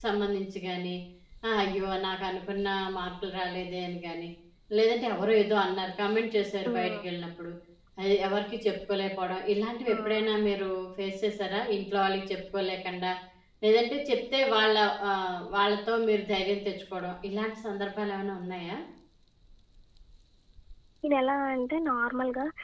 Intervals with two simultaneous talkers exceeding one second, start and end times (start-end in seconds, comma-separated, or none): none